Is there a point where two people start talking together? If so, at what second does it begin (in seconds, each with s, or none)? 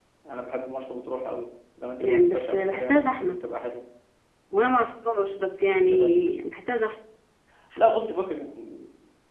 2.0 s